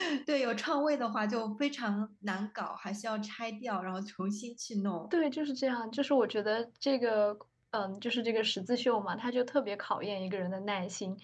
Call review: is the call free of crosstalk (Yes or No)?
Yes